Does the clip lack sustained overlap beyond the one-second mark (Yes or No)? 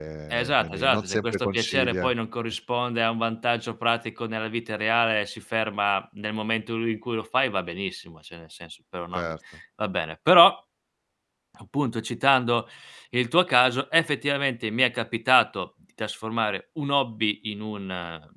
No